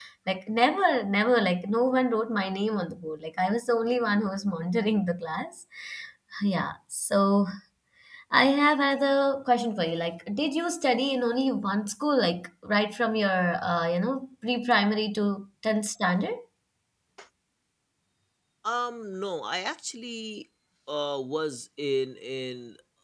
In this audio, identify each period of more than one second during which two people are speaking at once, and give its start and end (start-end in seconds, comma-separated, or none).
none